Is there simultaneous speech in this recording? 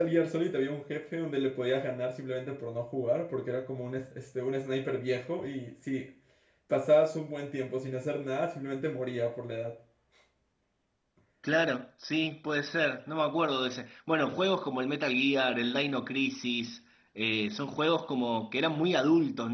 No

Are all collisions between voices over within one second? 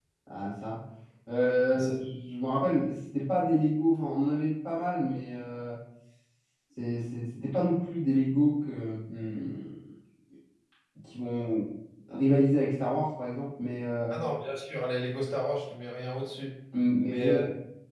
Yes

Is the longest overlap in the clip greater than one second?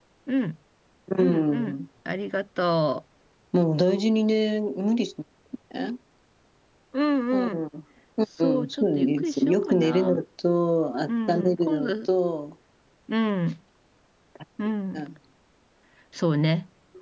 Yes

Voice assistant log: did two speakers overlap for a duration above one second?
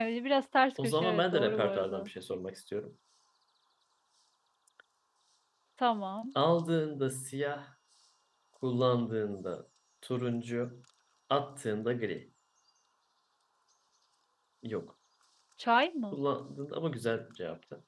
Yes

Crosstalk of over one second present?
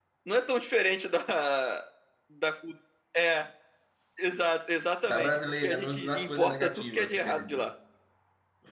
Yes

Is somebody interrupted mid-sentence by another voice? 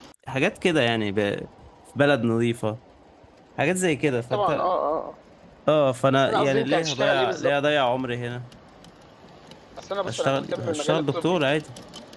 Yes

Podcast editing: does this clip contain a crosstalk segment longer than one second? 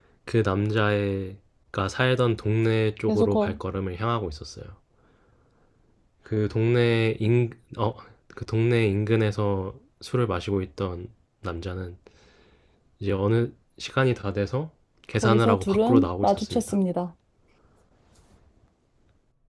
Yes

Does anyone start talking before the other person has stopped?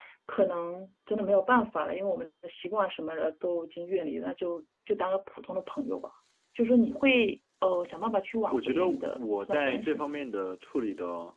Yes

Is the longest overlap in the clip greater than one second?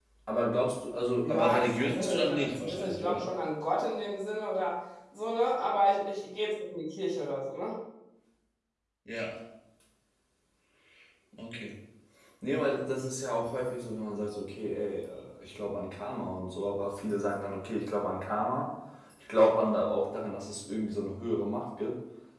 Yes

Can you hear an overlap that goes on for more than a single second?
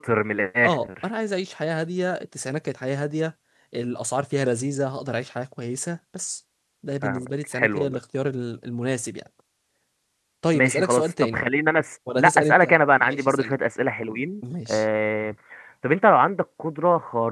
Yes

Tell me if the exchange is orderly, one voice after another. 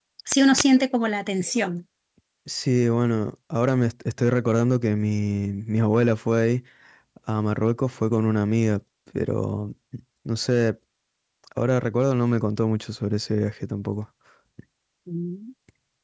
Yes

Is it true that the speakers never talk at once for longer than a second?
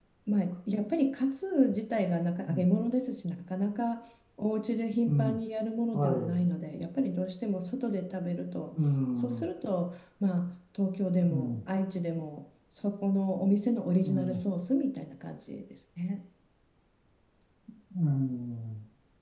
Yes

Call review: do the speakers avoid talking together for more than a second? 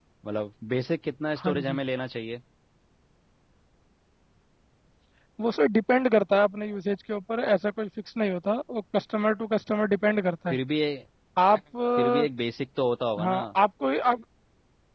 Yes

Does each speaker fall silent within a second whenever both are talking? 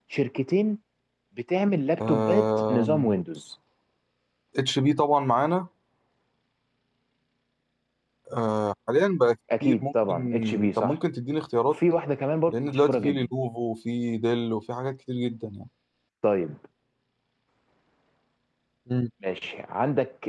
No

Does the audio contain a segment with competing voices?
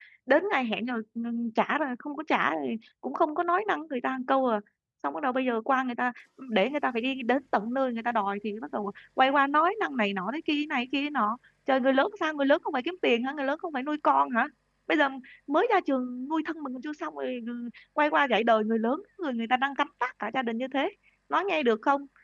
No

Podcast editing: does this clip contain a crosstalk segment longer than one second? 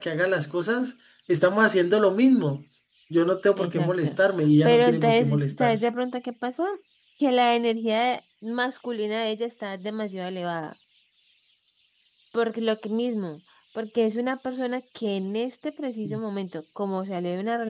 Yes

